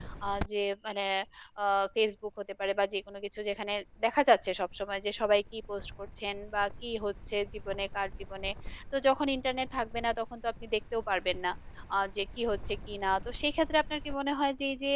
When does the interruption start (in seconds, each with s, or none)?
none